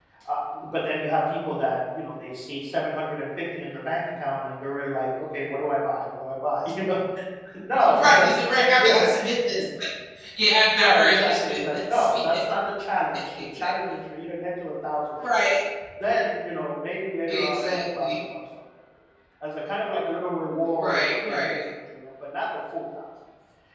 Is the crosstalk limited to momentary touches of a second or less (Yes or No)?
No